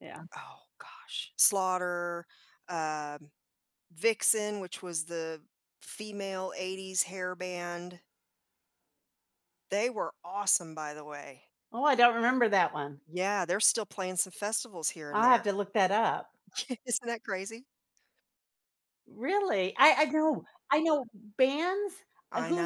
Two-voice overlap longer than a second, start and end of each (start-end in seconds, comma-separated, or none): none